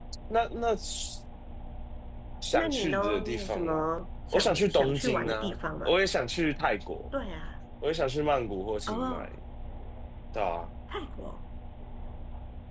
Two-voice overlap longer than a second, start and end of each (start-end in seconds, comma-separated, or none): 2.5-3.9, 4.3-5.9